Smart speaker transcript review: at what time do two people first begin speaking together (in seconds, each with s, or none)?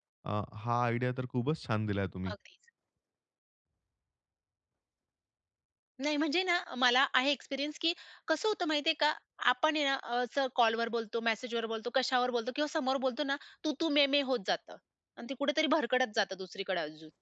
none